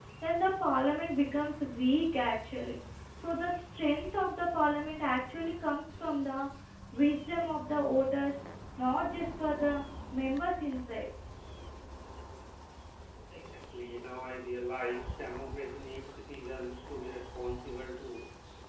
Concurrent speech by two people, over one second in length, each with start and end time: none

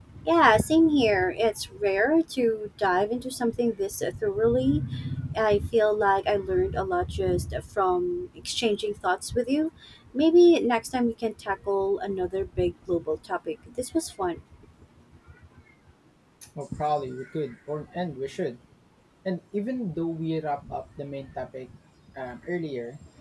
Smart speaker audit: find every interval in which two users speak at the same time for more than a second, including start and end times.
none

